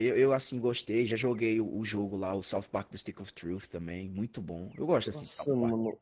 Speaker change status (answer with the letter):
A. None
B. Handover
B